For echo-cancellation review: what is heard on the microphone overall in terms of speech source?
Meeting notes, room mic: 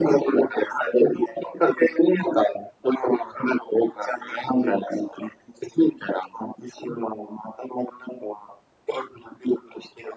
echo only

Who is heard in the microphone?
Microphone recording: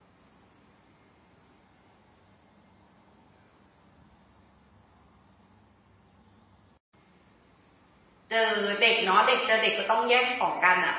user only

